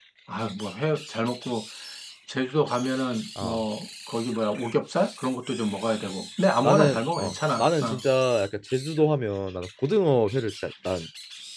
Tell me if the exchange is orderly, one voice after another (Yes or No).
No